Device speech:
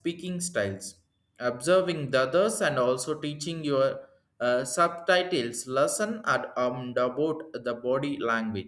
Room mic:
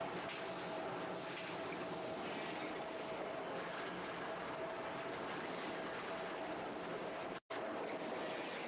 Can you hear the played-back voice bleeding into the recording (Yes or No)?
No